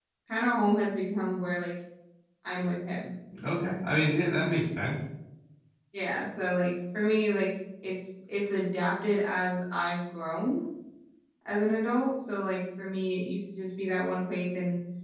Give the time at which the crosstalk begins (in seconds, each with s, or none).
none